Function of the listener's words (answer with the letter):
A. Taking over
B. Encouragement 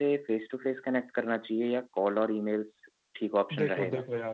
A